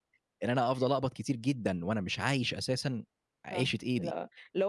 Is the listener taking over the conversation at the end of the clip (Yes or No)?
Yes